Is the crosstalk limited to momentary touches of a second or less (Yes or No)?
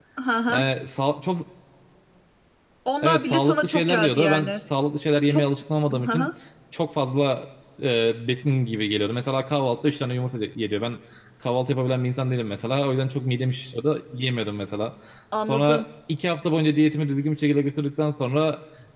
No